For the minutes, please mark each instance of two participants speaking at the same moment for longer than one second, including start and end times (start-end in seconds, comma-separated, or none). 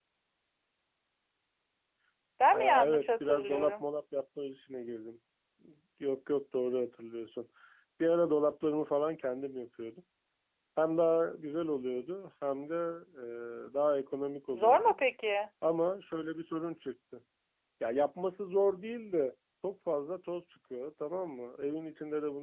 2.5-3.8